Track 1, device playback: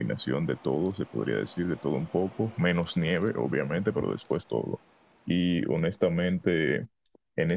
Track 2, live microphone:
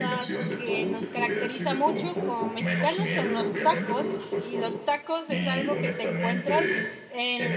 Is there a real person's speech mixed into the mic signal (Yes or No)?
Yes